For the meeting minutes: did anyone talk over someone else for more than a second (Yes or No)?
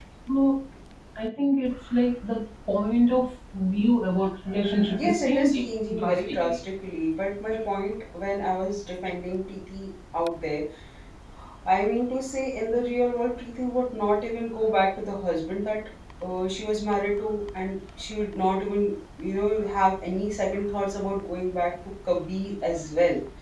Yes